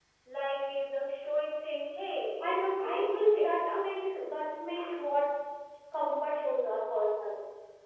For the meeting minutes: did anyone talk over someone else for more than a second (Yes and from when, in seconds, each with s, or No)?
Yes, from 2.4 s